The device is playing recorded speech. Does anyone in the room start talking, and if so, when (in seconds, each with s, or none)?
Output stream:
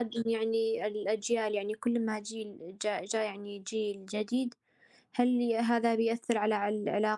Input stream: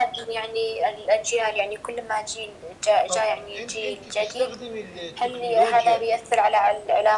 3.1 s